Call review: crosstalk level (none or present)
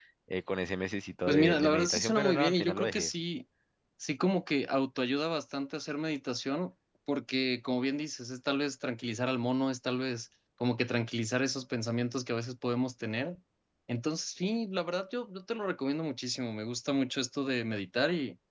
present